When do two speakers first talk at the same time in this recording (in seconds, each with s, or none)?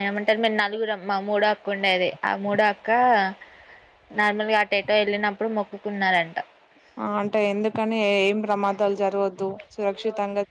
none